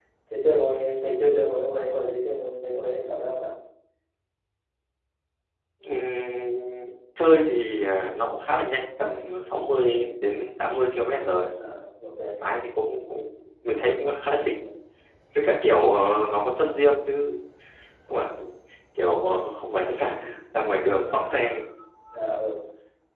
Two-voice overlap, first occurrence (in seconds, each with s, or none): none